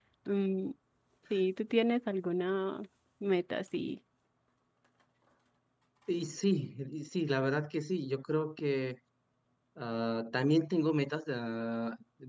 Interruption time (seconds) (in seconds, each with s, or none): none